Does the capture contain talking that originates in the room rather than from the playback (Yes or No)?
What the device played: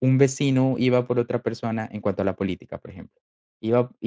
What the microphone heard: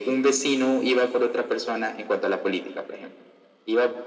No